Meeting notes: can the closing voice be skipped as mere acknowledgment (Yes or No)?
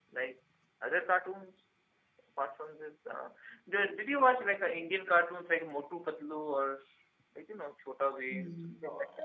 No